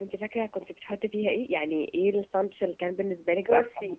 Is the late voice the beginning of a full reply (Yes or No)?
Yes